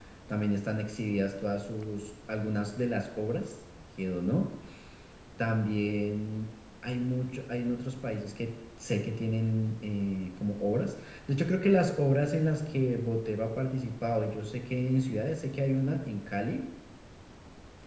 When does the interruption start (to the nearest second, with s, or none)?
none